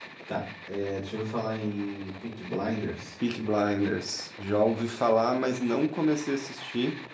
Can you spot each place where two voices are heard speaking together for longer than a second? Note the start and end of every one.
none

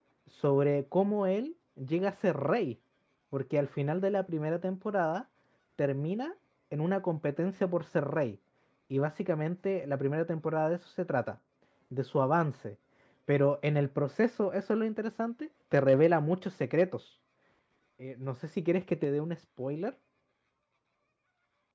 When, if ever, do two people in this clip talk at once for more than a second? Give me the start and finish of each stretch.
none

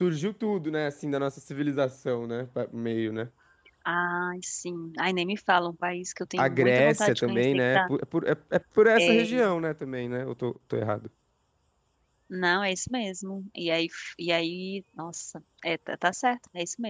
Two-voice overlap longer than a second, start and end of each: 6.4-7.8

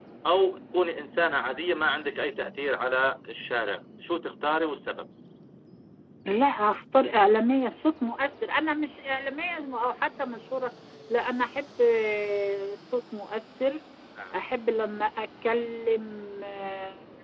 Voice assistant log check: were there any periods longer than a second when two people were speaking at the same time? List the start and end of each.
none

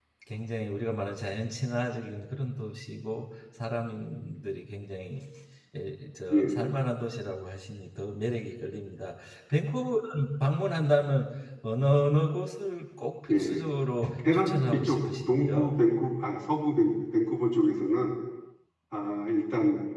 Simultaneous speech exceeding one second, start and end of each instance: 14.2-15.8

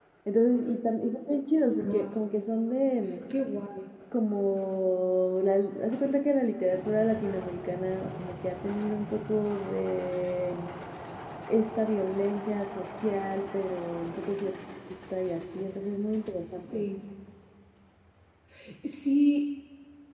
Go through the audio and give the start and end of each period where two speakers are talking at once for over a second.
none

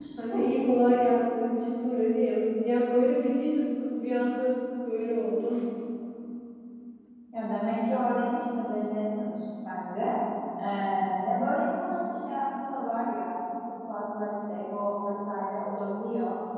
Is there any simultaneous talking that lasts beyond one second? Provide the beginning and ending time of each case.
none

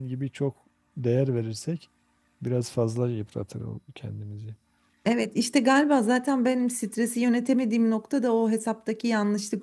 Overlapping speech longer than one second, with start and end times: none

